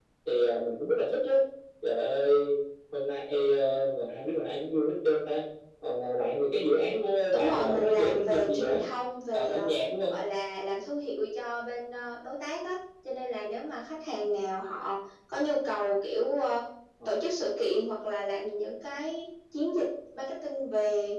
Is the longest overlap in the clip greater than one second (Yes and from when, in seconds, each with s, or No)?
Yes, from 7.3 s